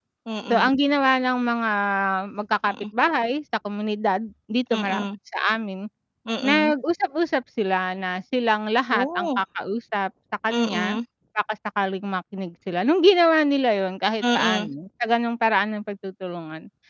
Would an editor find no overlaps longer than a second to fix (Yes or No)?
Yes